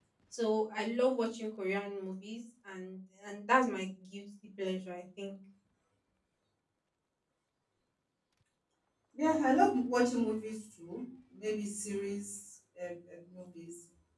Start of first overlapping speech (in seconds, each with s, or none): none